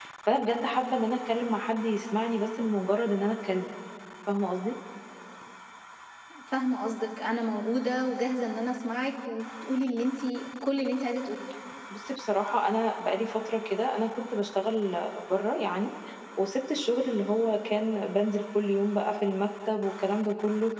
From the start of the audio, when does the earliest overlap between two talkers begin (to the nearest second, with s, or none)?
none